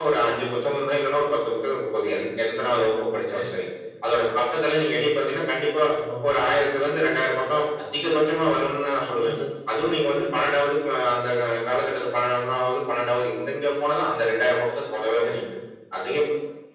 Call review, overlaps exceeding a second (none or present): none